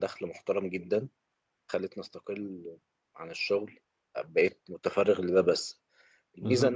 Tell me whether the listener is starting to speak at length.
No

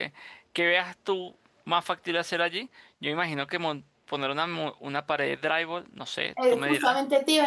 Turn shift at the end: Yes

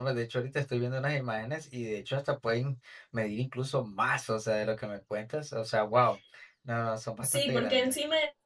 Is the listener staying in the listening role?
No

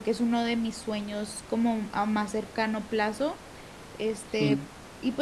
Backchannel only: Yes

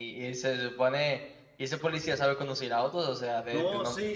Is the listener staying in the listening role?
No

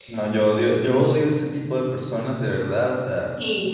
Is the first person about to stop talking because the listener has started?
No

